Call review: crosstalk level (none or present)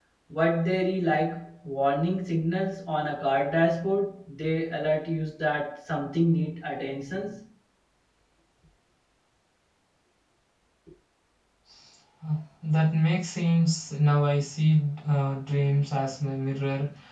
none